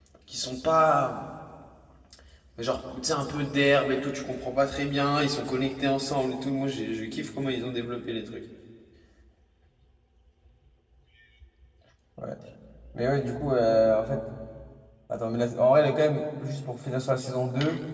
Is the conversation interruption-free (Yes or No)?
Yes